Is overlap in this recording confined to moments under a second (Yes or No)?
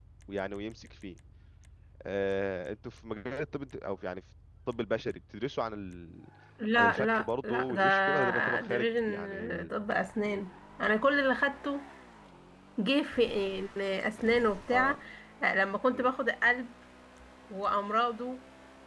No